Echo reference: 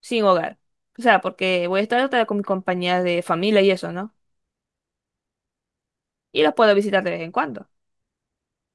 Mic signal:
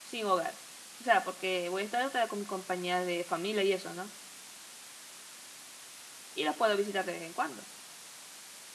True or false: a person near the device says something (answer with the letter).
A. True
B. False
B